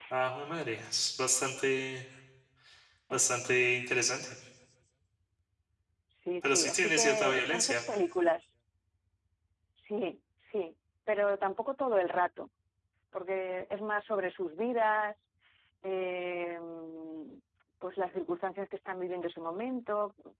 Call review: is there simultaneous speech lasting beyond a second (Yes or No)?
Yes